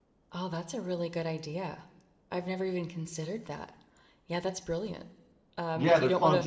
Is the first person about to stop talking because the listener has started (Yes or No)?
Yes